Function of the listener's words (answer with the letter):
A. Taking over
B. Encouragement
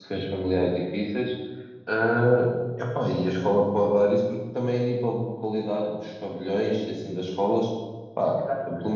B